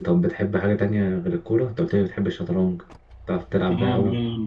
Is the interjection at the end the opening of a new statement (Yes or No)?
Yes